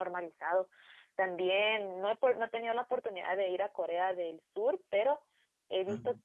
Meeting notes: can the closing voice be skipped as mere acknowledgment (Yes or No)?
Yes